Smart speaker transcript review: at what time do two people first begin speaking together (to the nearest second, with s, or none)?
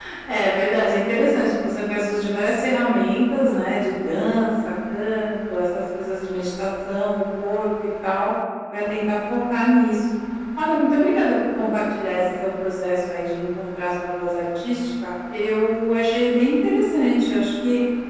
none